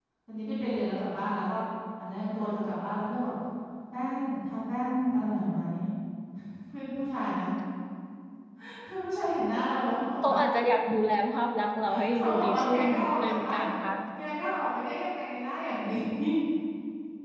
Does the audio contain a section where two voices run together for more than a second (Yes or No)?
Yes